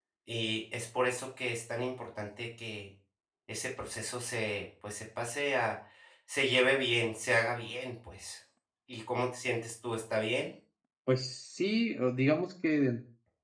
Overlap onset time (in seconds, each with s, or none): none